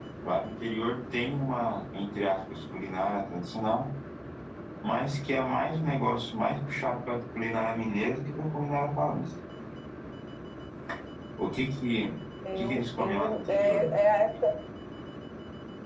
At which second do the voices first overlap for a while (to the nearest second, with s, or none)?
13 s